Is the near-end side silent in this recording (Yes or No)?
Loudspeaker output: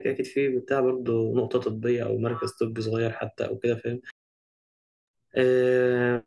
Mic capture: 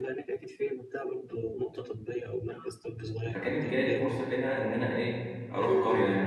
No